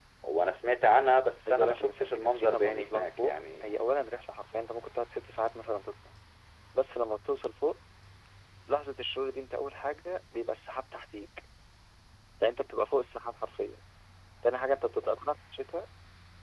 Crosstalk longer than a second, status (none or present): present